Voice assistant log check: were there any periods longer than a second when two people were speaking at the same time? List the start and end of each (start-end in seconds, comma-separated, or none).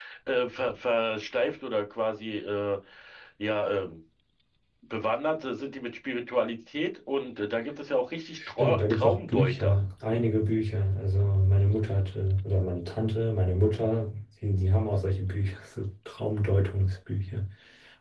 8.4-9.8